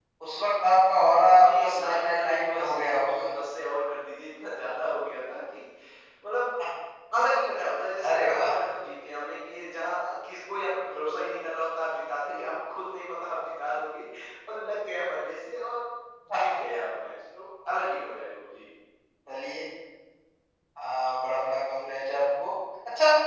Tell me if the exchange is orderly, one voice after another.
No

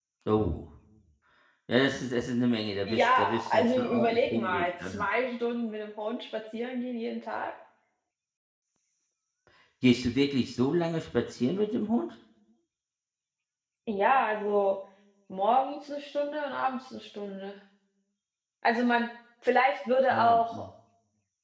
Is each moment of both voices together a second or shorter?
No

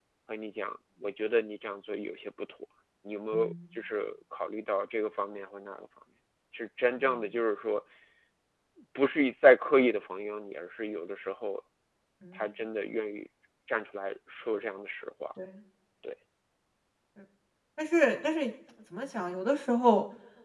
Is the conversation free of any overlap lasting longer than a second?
Yes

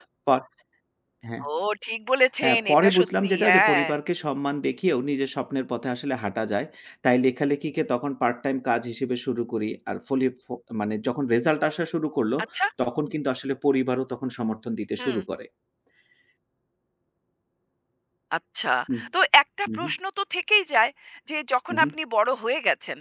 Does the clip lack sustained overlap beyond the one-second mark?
No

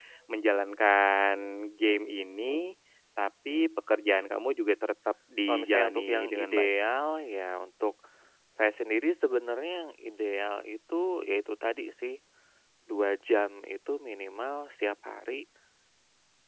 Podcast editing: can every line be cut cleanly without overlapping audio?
No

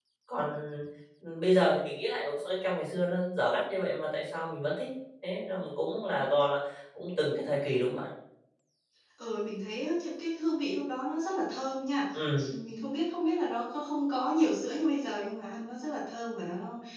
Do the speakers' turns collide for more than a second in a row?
No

